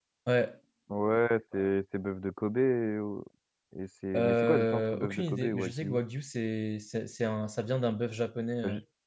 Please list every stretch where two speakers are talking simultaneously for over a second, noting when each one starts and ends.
4.1-6.0

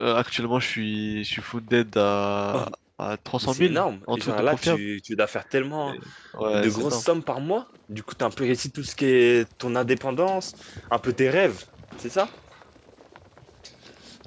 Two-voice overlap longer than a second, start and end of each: 3.4-4.8

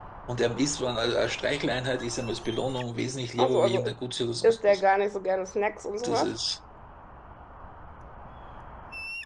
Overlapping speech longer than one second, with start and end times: none

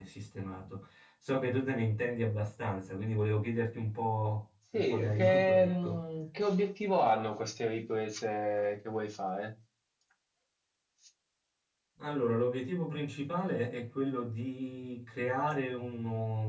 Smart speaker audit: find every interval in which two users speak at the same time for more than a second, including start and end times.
4.7-6.0

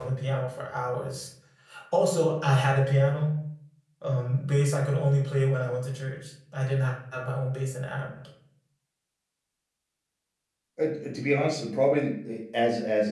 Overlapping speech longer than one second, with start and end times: none

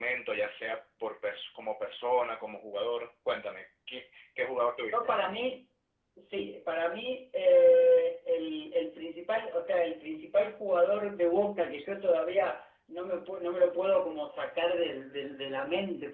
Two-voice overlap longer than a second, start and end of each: none

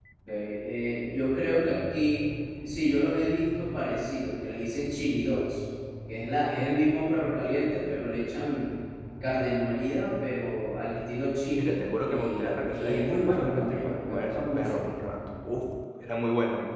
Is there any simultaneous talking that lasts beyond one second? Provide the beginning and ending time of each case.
11.6-14.8

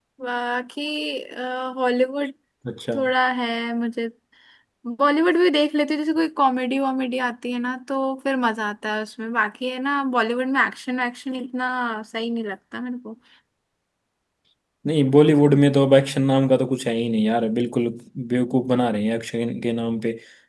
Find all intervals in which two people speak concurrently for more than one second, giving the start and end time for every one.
none

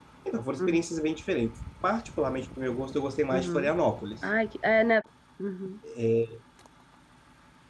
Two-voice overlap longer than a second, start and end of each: none

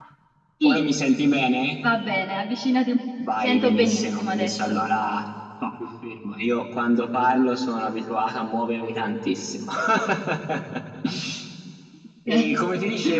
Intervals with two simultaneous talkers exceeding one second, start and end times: 3.3-4.8

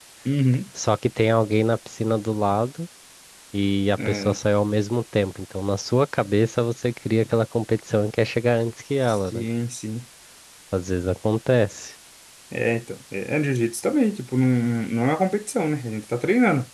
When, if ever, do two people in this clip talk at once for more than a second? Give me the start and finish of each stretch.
none

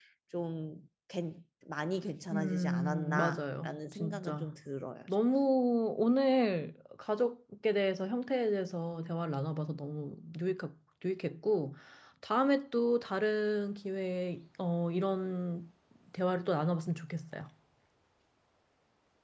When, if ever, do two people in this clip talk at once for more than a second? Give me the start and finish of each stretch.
2.3-4.6

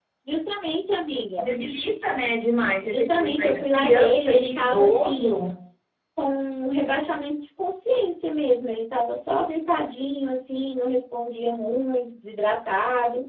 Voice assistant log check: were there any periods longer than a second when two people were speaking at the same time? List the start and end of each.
2.8-5.4

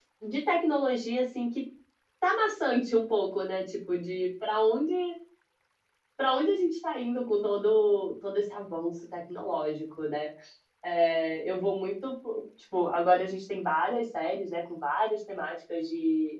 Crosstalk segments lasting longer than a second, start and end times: none

